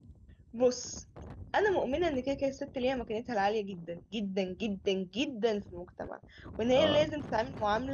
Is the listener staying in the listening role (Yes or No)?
Yes